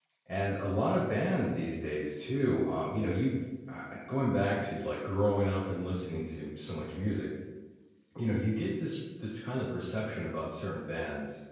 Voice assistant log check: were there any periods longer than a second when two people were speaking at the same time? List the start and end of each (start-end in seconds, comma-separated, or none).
none